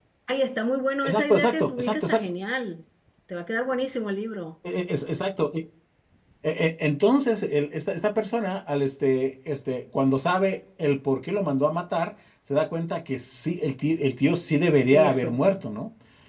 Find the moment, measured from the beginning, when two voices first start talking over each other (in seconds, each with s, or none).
1.1 s